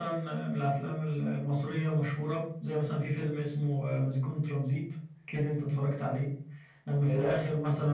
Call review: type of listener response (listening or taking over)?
listening